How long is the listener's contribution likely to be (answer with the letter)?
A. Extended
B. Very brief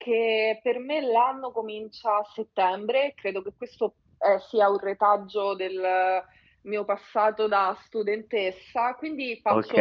B